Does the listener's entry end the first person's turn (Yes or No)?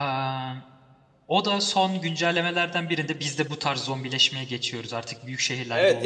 Yes